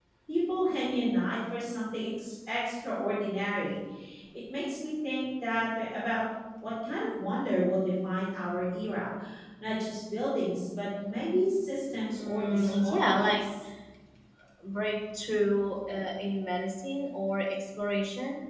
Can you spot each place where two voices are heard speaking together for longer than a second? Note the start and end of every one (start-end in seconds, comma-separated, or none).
12.1-13.4